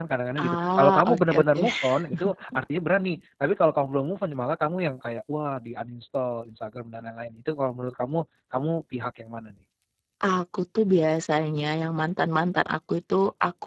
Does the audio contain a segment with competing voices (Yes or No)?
Yes